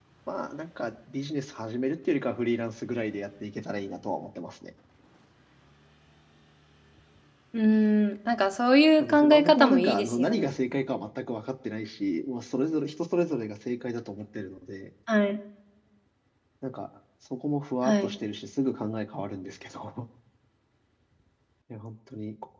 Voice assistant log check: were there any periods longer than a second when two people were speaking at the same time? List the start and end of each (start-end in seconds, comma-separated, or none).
9.0-10.5